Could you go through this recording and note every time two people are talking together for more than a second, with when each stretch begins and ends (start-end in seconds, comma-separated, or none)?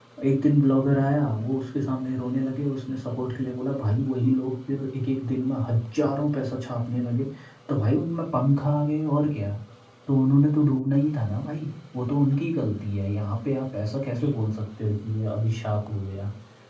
none